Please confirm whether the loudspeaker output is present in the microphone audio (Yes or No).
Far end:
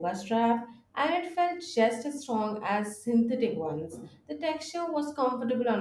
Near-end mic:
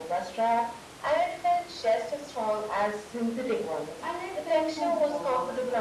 Yes